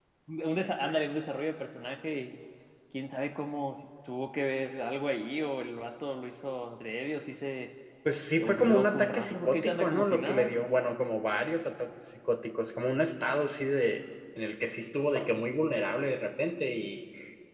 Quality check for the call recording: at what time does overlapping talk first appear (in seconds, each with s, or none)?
8.4 s